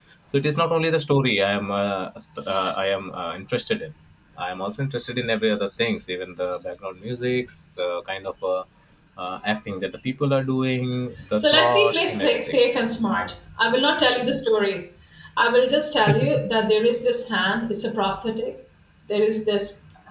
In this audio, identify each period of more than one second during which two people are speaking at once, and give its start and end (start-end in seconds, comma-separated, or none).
11.4-12.6